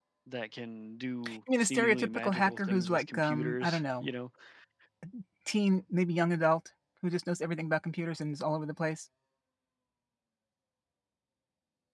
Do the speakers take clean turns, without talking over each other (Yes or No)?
No